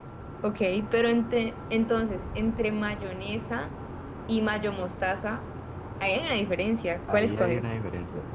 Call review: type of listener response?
taking over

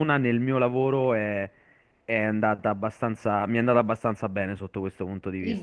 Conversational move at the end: taking over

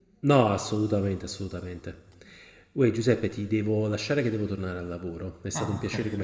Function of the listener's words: taking over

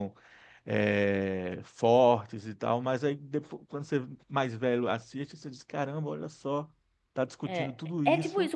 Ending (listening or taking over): taking over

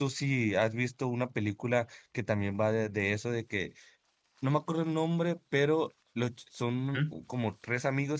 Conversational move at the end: listening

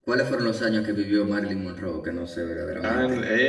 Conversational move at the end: taking over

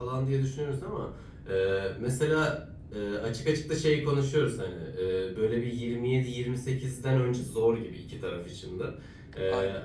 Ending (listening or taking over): listening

